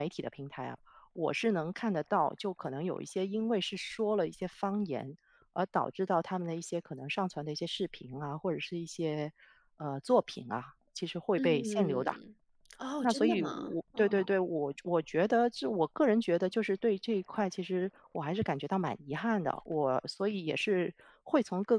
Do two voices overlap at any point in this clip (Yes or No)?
Yes